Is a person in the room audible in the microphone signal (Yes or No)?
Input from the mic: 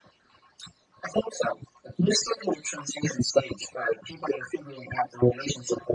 No